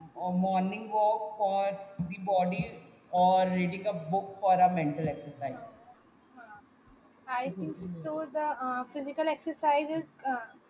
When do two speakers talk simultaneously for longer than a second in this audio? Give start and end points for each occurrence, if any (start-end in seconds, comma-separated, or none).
none